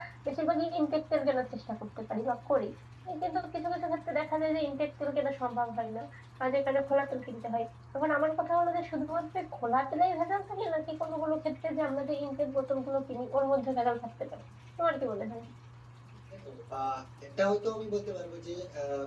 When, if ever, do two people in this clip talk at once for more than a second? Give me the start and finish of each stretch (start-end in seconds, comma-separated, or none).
none